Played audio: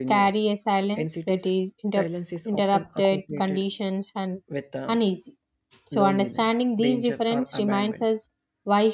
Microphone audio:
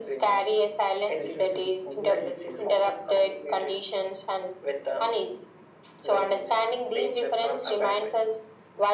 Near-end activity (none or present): present